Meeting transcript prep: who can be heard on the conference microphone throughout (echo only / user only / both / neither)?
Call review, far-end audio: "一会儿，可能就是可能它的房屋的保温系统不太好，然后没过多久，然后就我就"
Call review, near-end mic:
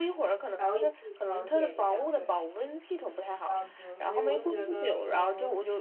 both